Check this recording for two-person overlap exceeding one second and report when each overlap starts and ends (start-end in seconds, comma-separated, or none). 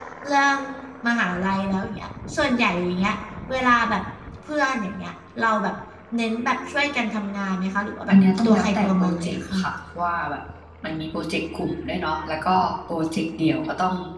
8.1-9.6